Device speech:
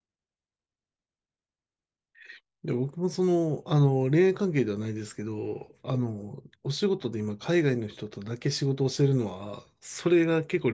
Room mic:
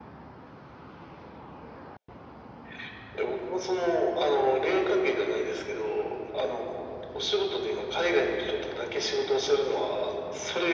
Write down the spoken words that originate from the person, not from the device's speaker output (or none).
none